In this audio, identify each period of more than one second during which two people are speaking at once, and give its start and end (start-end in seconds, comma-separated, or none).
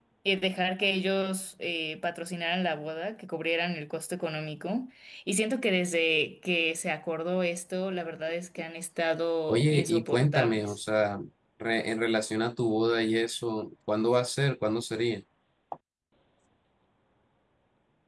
9.5-10.8